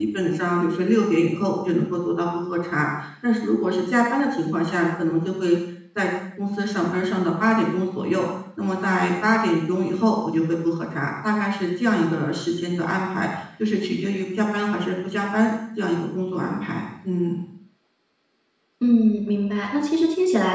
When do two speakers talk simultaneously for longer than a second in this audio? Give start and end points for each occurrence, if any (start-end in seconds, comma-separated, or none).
none